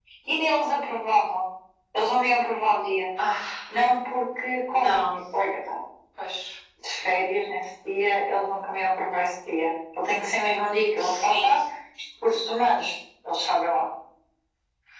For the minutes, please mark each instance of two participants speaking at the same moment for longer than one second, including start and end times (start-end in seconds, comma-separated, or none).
none